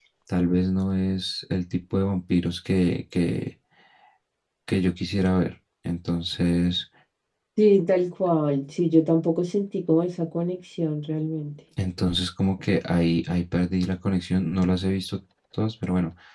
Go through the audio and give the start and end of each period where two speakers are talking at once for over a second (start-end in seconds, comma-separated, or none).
none